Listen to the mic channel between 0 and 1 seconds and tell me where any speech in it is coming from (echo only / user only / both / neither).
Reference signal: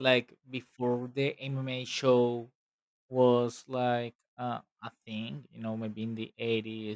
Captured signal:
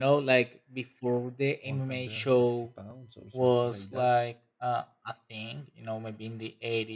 echo only